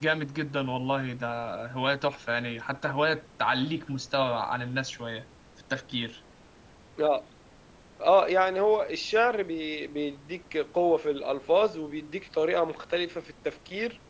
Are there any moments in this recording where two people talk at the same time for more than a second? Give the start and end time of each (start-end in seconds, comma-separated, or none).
none